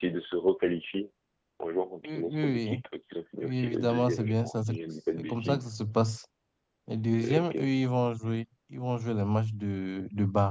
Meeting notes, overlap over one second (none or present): present